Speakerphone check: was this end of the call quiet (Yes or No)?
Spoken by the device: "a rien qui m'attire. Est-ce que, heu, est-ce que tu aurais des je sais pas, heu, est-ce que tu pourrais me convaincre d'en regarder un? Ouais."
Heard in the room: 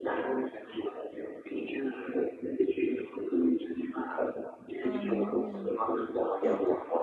No